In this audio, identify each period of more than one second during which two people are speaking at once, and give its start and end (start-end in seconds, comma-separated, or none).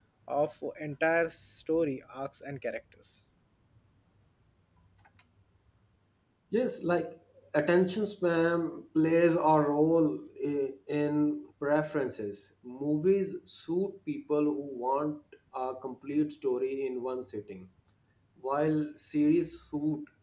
none